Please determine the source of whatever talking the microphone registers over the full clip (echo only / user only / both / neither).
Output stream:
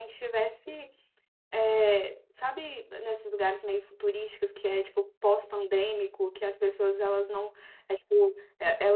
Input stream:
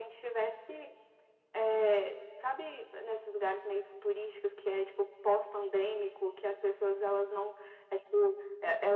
echo only